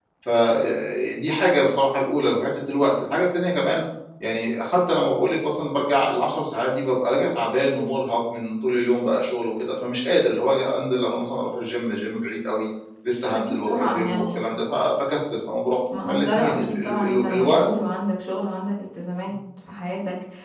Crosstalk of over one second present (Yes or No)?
Yes